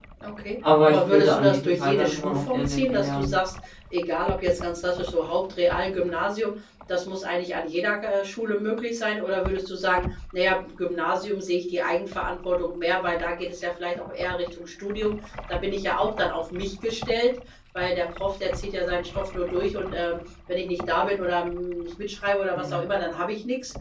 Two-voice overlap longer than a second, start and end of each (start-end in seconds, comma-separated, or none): 0.8-3.3